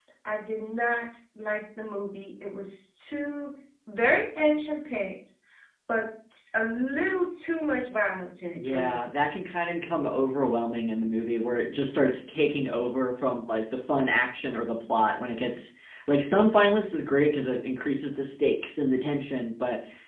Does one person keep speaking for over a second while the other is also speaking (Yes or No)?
No